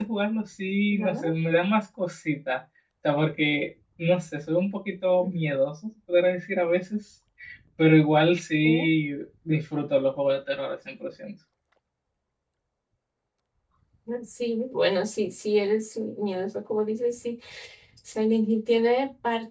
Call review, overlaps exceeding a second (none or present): none